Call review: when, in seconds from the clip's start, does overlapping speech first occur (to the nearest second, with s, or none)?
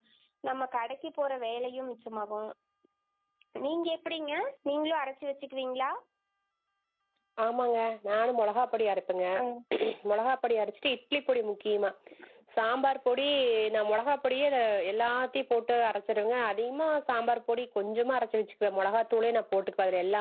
none